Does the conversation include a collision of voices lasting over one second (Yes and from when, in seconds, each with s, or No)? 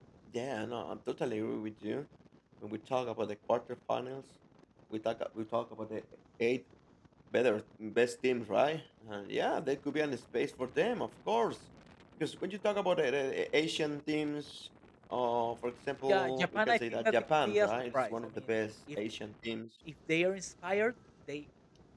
Yes, from 16.1 s